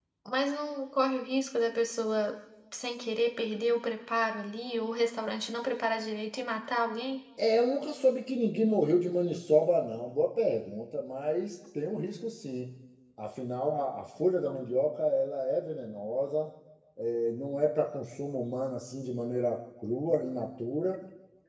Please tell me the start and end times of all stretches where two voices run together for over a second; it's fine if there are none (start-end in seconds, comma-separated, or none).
none